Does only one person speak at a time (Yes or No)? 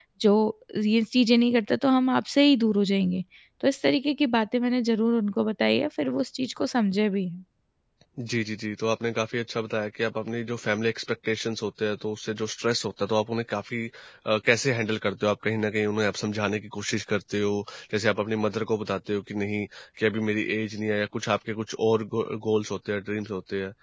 Yes